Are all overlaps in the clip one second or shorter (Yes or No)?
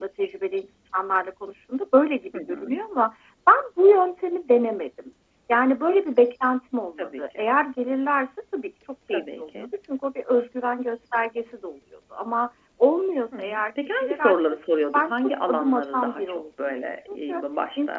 No